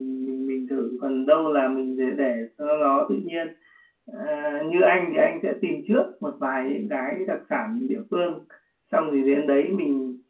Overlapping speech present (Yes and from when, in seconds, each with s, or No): No